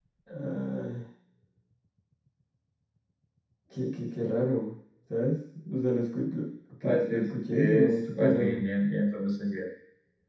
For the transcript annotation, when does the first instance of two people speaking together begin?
6.8 s

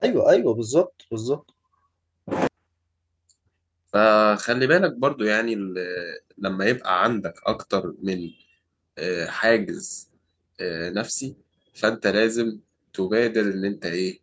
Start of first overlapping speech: none

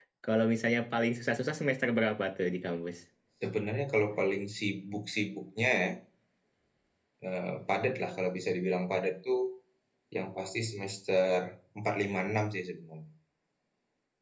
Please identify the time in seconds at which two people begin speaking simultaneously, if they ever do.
none

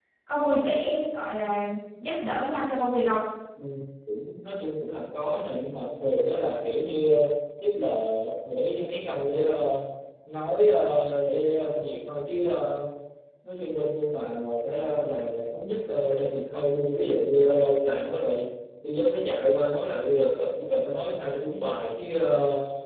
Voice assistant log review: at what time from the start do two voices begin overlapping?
none

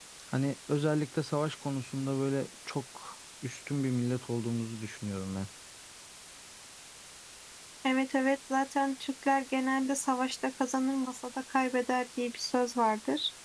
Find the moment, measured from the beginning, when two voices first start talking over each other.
none

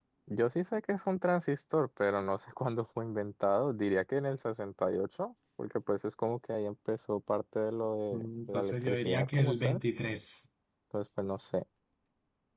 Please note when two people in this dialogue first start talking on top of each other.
8.1 s

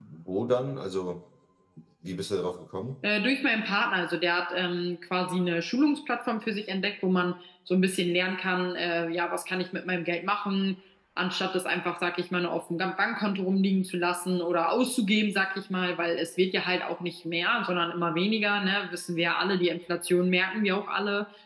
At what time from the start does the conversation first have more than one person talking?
none

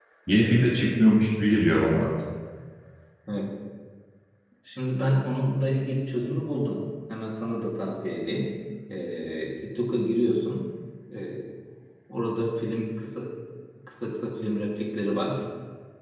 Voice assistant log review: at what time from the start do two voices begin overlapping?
none

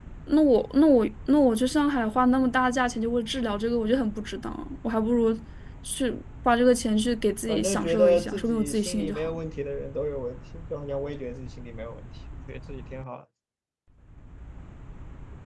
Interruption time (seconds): 7.5 s

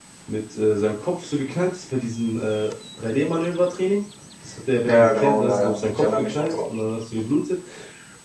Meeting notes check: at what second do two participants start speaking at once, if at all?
4.9 s

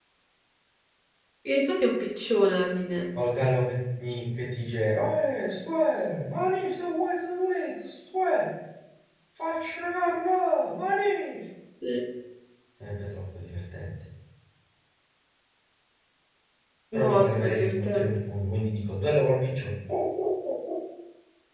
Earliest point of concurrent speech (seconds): 17.0 s

